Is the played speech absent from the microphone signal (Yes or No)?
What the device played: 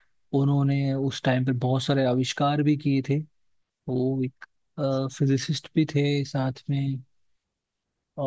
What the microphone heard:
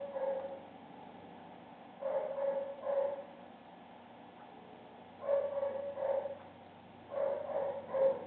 Yes